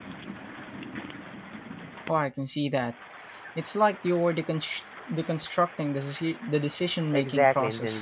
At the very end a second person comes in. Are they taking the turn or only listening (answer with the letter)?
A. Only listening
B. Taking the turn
B